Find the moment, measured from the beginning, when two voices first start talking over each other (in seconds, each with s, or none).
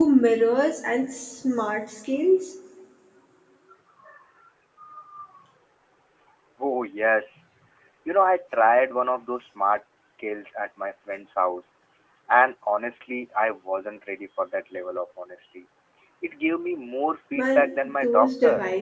17.4 s